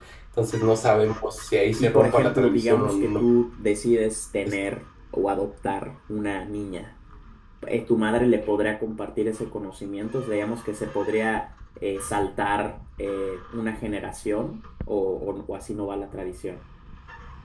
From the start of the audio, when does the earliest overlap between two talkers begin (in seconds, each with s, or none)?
1.8 s